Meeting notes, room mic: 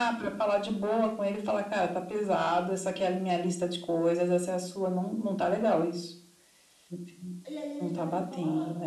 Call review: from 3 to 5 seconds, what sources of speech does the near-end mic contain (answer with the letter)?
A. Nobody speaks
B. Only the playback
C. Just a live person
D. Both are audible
B